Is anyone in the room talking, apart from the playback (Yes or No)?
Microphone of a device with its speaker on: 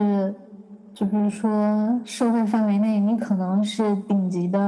No